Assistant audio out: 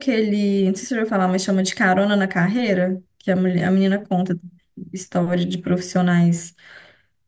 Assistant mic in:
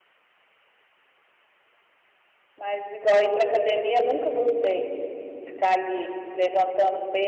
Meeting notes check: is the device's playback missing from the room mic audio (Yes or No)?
Yes